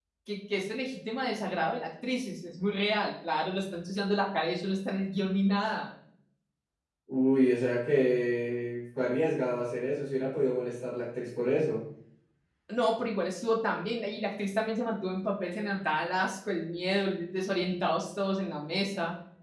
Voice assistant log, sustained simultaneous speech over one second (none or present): none